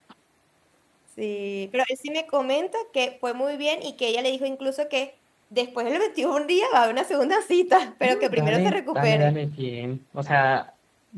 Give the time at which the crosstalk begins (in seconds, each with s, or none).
8.0 s